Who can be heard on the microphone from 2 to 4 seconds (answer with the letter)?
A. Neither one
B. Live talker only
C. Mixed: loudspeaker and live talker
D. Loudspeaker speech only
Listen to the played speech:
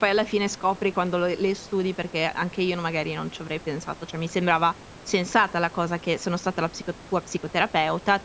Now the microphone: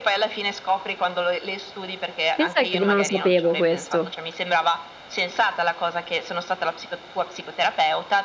C